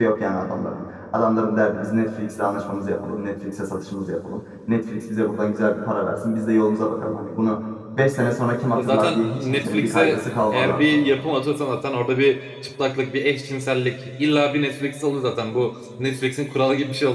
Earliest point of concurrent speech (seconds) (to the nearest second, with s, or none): 9 s